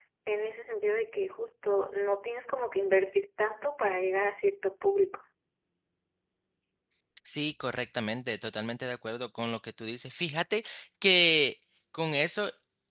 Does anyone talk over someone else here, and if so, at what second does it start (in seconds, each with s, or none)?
none